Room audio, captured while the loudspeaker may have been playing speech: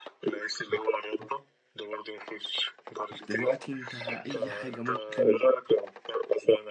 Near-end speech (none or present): present